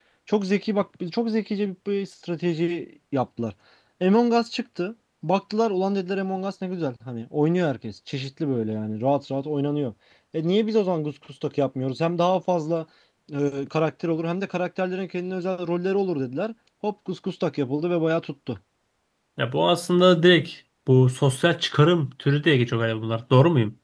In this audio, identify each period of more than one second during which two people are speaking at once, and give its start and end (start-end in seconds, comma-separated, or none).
none